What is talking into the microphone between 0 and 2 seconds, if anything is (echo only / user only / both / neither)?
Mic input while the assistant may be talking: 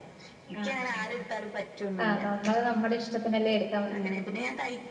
both